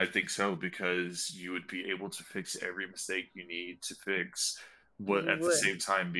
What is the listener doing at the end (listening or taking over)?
listening